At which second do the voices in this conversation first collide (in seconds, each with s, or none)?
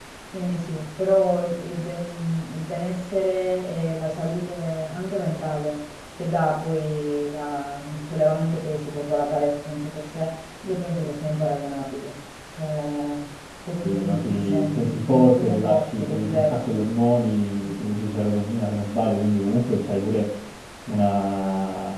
13.8 s